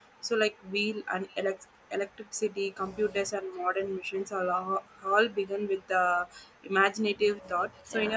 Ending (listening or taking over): listening